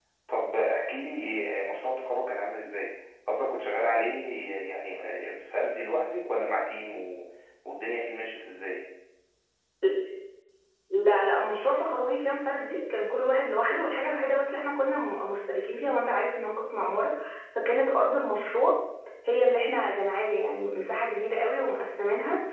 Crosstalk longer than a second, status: none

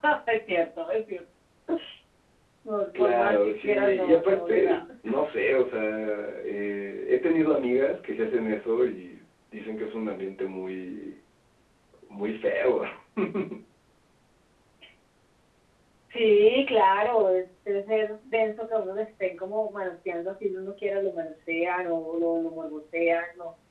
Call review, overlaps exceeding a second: present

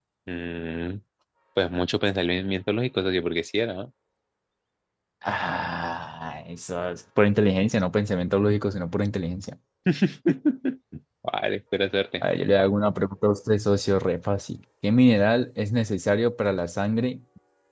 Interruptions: none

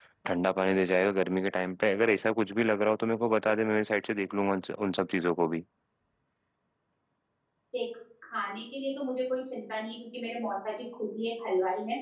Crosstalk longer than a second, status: none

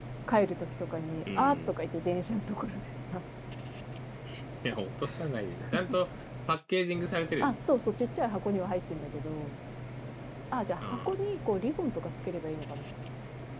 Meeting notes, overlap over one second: none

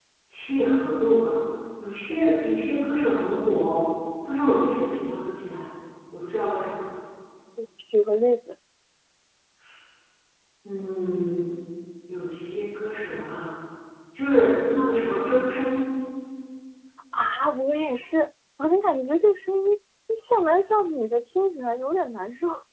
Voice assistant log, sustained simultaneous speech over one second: none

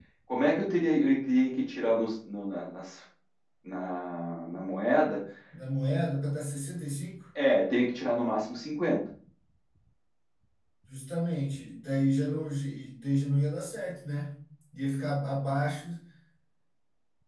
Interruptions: none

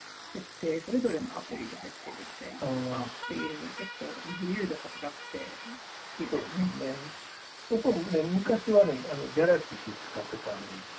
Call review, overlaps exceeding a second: none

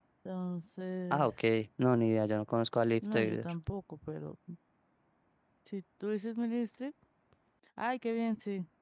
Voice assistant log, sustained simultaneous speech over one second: none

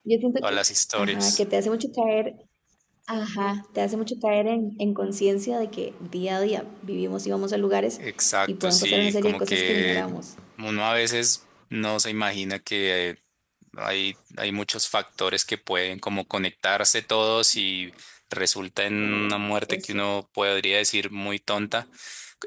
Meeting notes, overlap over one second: present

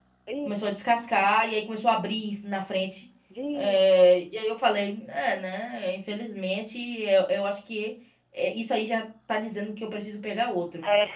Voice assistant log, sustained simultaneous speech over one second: none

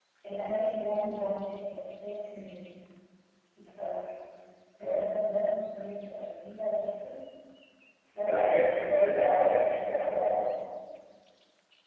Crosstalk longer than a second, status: present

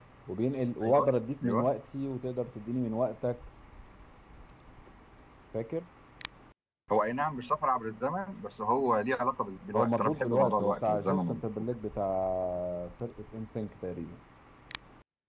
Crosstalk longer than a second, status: present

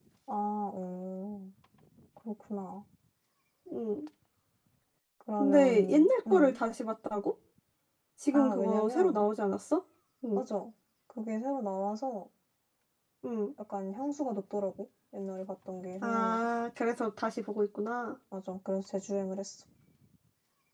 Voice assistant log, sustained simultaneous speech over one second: present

